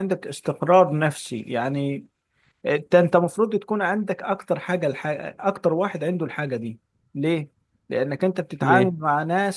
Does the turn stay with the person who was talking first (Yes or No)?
Yes